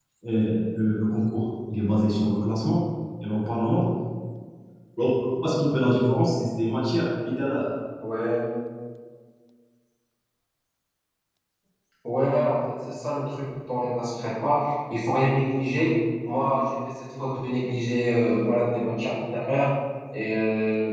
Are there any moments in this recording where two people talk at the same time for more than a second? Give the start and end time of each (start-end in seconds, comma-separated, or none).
none